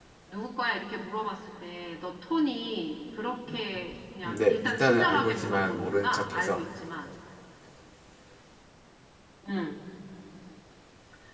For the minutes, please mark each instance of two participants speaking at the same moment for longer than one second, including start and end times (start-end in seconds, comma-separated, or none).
4.2-6.6